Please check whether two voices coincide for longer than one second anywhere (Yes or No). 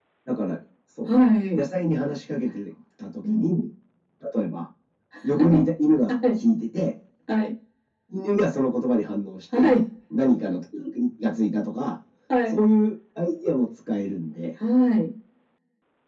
No